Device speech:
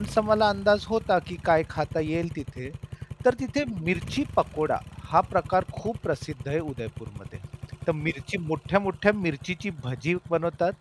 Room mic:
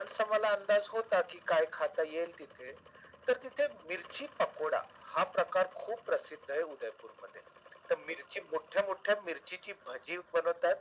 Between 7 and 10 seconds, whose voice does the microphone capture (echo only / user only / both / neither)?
echo only